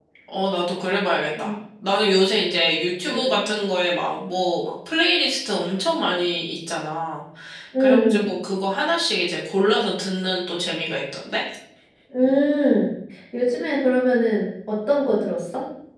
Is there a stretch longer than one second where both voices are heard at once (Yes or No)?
No